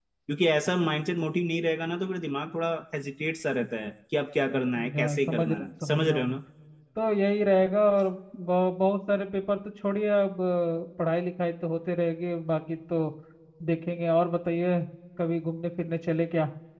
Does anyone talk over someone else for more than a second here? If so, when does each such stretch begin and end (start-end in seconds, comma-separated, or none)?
5.0-6.3